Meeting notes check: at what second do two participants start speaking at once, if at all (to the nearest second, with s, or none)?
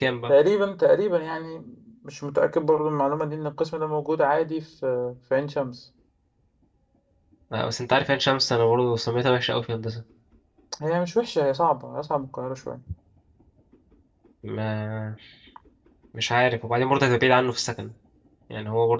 none